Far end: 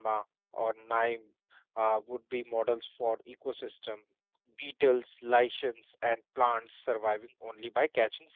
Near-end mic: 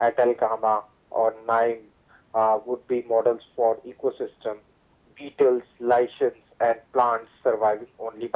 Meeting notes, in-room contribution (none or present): none